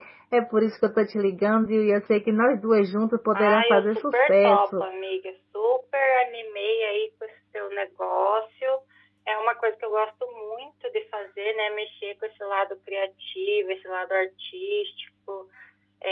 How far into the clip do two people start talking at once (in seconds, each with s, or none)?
3.3 s